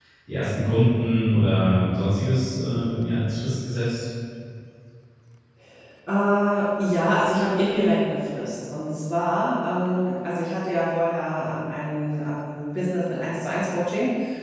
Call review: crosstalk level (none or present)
none